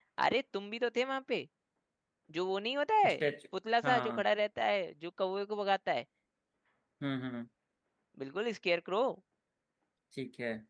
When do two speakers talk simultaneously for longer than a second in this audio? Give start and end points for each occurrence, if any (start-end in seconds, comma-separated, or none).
none